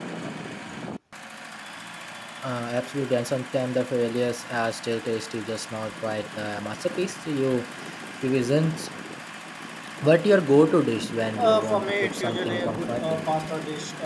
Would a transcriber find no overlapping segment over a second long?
No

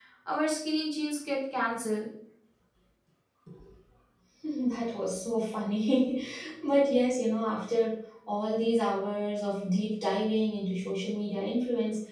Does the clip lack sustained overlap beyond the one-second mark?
Yes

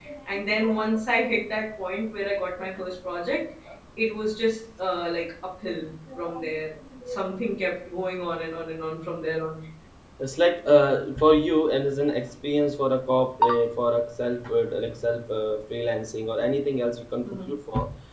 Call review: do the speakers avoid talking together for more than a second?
Yes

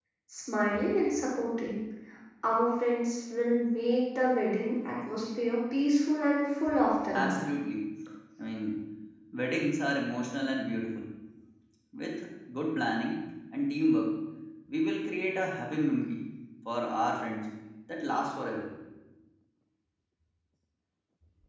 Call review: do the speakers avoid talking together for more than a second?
Yes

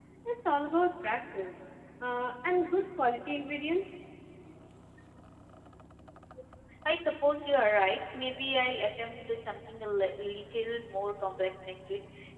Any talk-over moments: No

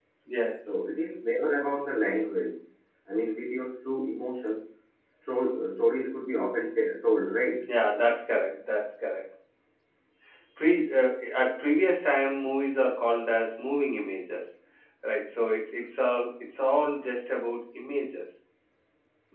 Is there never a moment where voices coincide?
Yes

